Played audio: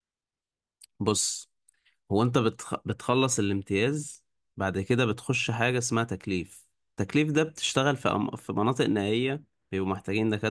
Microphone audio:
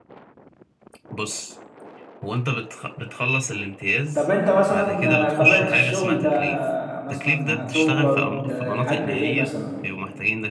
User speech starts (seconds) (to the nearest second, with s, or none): 4 s